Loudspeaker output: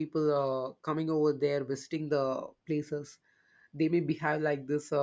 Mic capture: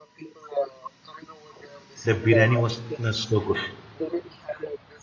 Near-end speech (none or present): present